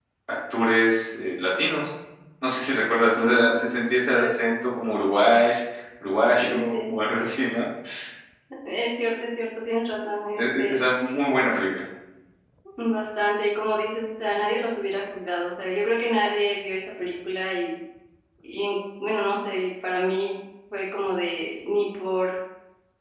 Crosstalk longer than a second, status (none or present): present